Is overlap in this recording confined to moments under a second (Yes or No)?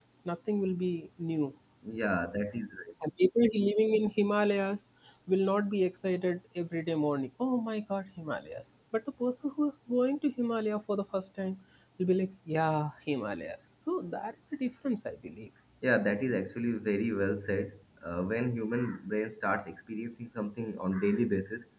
Yes